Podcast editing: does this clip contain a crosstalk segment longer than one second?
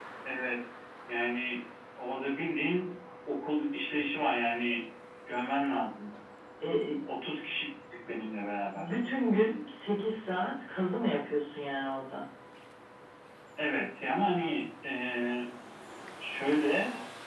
No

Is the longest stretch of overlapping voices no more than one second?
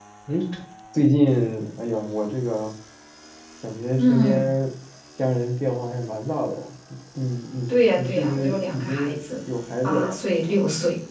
No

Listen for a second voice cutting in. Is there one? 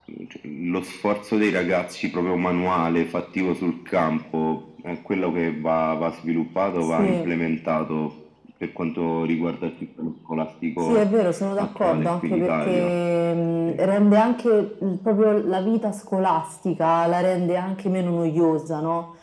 Yes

